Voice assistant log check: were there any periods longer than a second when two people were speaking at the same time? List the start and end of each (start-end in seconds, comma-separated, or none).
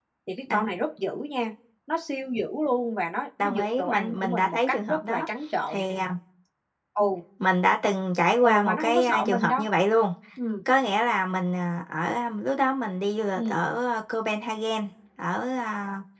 3.4-5.3, 8.4-9.7